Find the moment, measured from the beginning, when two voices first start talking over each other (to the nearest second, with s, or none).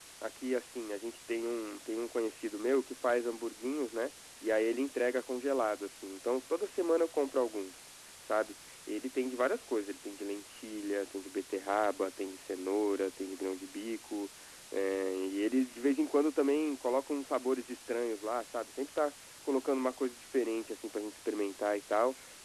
none